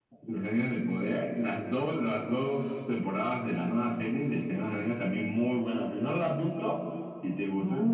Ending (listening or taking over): taking over